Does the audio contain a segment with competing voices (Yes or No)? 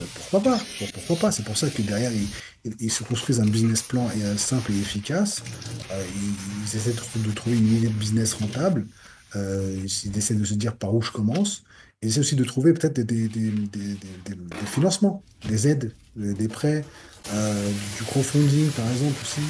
No